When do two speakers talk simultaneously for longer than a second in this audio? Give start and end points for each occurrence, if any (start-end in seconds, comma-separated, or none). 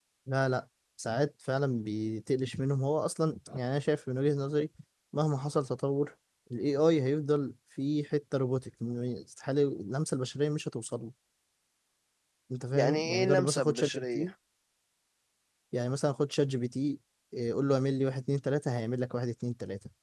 12.7-14.3